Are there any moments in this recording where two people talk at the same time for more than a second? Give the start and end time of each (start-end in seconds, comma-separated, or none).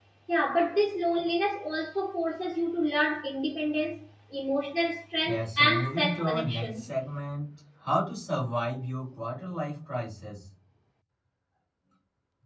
5.2-6.9